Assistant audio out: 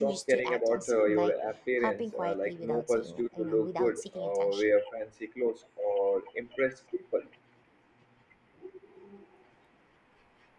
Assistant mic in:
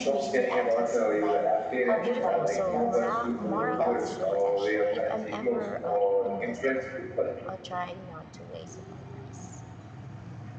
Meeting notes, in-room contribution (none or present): present